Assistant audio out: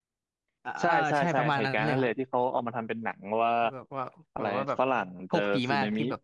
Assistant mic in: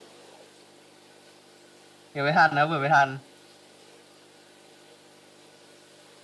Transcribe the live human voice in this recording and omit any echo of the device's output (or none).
เดี๋ยวไม่ทันนะเปิดไม่ทัน